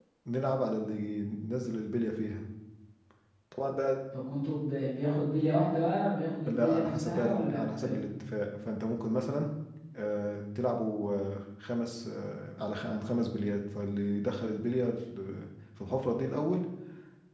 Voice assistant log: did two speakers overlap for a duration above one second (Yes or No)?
Yes